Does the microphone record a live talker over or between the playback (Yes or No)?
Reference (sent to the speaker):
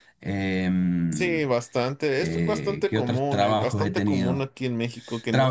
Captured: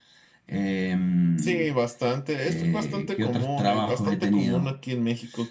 No